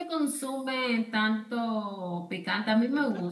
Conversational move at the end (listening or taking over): listening